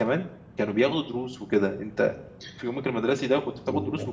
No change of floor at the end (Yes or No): No